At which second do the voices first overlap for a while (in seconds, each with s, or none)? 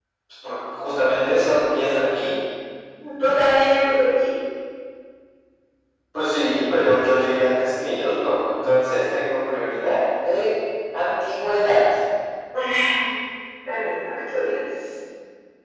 none